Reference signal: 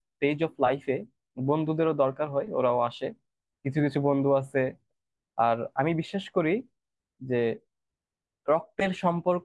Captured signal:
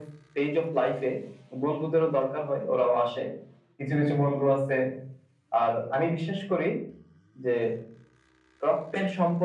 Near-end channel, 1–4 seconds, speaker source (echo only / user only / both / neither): echo only